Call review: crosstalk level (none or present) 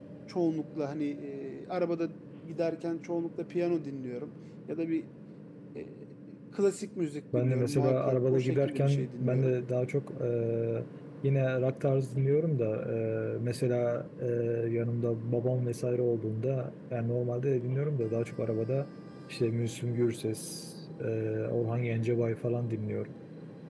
present